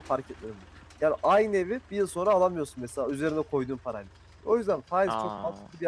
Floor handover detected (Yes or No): No